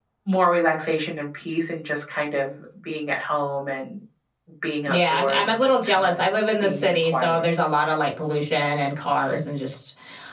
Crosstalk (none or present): present